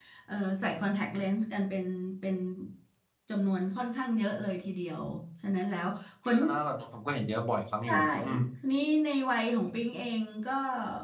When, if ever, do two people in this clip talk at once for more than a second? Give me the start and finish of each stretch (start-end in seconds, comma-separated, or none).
none